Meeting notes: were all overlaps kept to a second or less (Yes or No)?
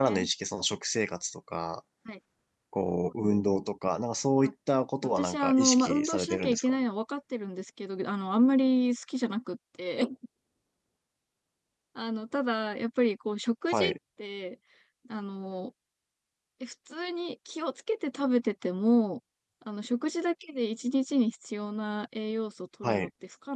No